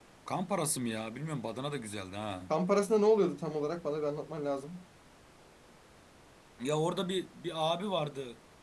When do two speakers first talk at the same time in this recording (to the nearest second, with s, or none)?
none